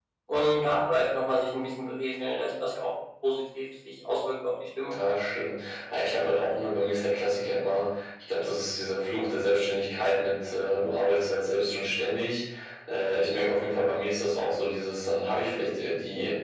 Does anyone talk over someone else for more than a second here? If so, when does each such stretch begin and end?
none

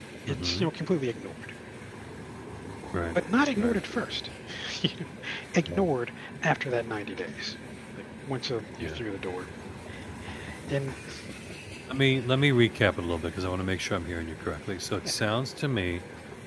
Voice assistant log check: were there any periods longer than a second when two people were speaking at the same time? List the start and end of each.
none

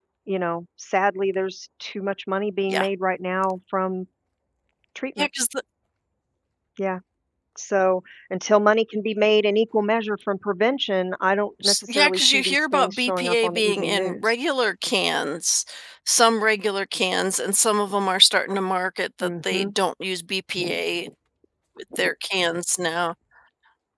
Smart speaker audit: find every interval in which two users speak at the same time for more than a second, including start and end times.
11.6-14.3

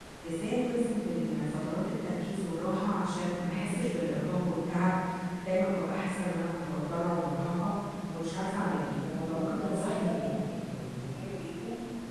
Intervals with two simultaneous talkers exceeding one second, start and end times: 8.6-10.3

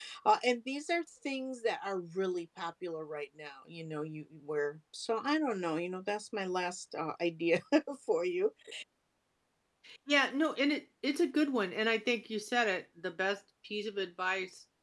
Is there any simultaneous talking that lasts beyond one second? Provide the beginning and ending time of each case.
none

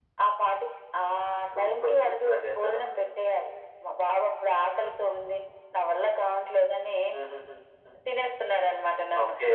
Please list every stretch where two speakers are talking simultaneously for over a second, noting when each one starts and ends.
1.6-2.8

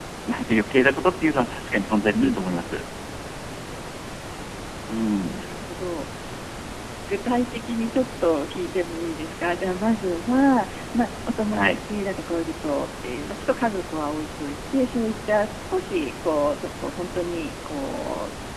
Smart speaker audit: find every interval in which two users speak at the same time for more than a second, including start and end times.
none

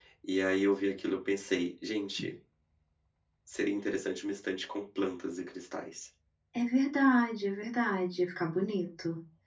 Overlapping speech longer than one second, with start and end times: none

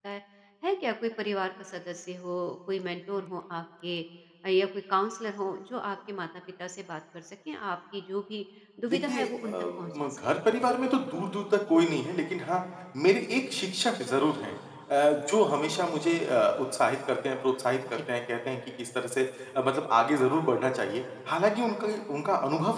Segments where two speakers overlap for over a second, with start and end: 8.9-10.2

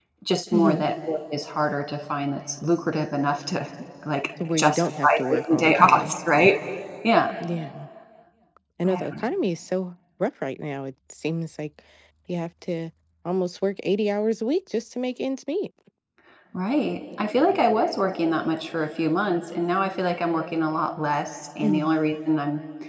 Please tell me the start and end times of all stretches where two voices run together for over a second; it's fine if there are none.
4.6-6.1

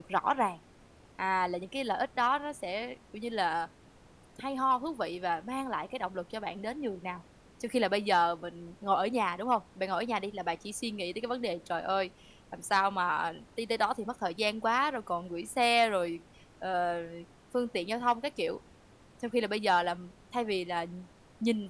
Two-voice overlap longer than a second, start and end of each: none

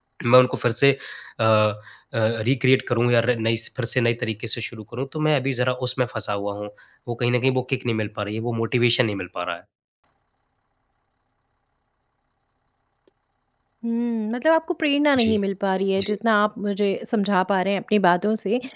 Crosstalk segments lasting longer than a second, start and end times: none

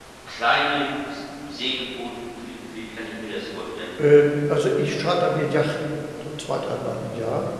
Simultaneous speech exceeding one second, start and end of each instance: none

